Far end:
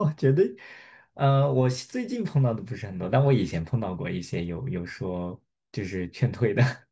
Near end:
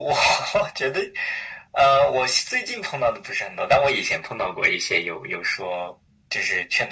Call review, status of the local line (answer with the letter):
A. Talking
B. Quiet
B